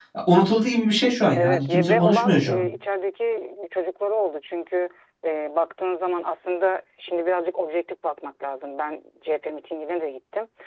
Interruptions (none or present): present